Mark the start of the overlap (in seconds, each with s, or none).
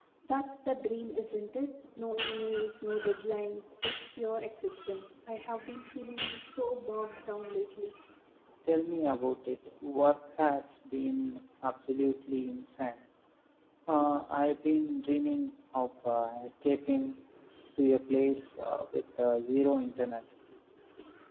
none